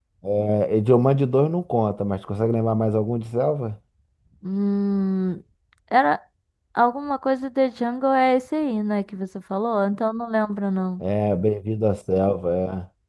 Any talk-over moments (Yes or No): No